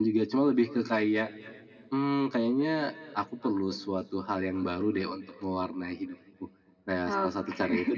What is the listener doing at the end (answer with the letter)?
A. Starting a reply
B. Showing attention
B